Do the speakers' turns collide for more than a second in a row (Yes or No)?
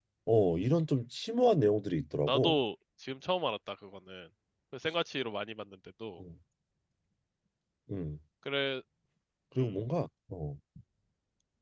No